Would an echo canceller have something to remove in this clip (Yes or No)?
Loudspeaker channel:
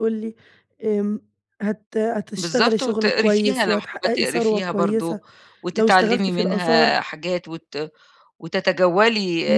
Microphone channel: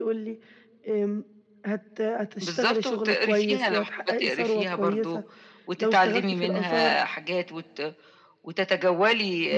Yes